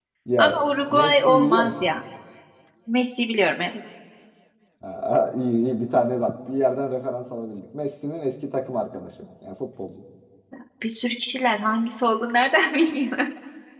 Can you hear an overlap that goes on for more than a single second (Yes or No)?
Yes